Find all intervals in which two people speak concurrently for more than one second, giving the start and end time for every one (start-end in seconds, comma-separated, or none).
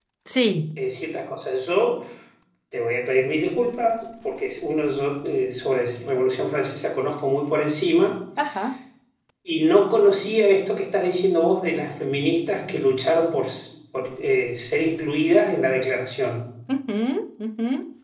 none